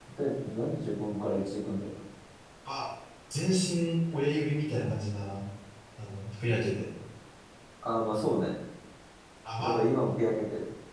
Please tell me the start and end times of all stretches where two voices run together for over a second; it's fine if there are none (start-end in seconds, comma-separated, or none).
none